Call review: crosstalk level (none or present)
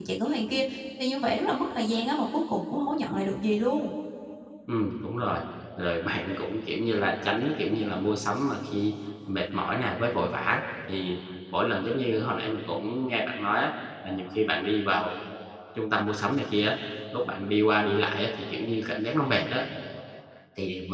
none